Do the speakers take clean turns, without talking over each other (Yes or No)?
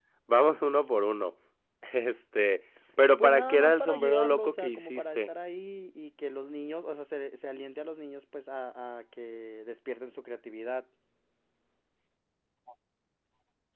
No